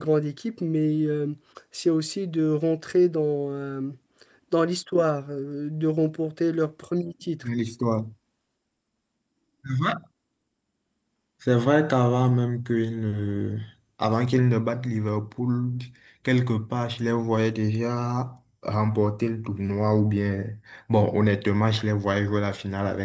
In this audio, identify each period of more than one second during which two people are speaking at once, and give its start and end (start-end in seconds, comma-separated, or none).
none